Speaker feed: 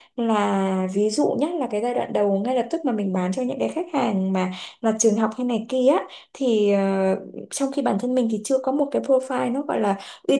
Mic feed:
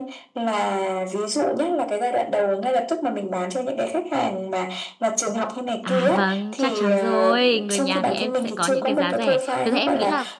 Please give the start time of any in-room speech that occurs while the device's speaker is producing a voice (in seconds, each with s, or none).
5.8 s